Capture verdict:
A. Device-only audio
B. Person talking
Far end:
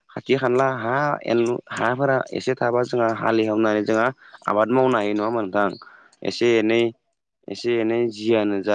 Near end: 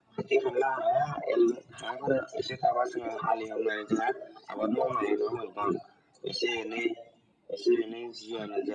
A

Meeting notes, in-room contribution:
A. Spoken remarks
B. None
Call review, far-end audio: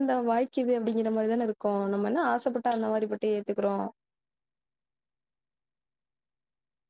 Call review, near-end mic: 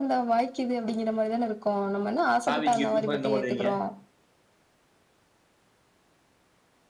A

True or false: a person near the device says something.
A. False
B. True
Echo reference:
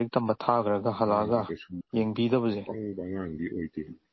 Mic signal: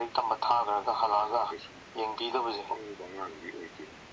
A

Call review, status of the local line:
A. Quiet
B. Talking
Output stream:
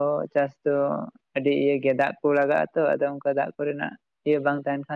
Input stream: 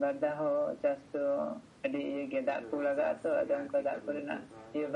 B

